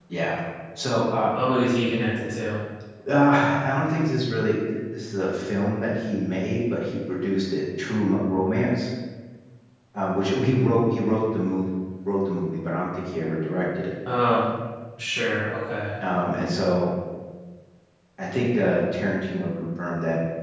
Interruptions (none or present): none